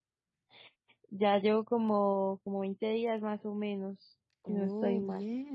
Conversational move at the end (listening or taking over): taking over